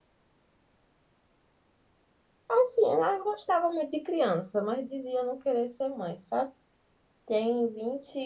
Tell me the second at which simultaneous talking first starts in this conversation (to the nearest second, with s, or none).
none